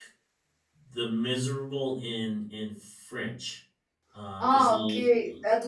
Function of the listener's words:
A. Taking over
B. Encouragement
A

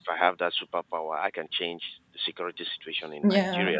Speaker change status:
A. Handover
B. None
B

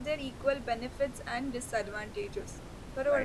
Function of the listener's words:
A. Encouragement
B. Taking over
B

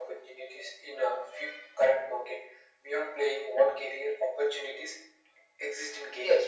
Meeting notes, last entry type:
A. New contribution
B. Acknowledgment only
A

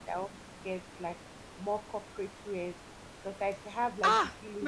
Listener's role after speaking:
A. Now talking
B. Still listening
A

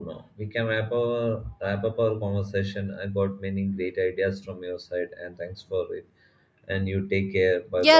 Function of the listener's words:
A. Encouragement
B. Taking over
B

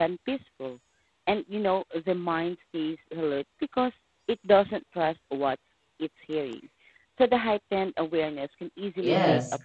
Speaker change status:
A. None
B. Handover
B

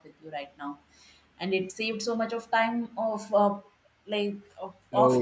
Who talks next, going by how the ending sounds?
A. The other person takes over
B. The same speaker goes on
A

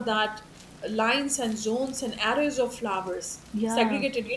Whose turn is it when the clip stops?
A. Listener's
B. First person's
B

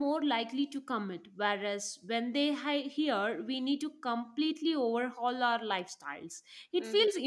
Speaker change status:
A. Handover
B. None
B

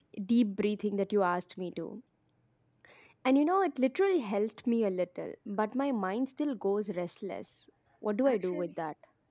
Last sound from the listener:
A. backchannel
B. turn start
B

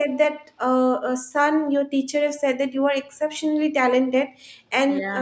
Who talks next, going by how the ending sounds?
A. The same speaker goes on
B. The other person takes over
A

